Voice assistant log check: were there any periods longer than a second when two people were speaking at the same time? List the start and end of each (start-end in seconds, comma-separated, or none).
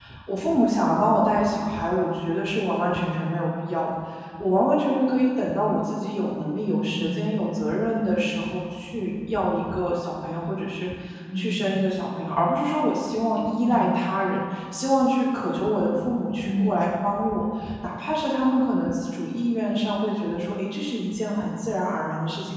none